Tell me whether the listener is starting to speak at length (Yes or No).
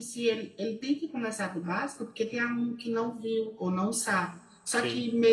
No